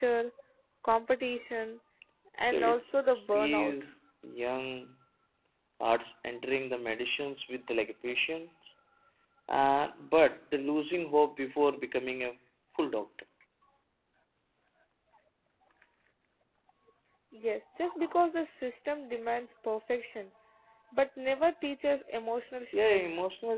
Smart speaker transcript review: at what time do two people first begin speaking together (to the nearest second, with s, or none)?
3 s